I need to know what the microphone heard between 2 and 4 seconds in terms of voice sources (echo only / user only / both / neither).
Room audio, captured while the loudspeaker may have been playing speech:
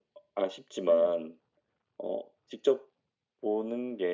echo only